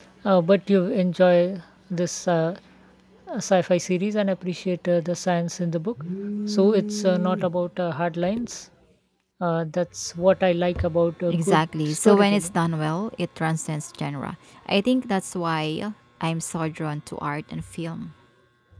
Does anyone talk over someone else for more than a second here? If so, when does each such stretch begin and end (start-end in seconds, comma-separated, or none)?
11.3-12.5